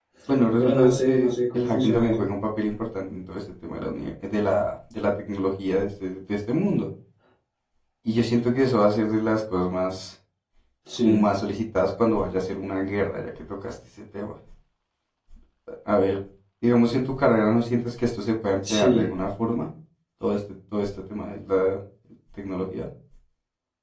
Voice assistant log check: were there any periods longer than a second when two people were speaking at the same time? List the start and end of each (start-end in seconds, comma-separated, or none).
0.6-2.2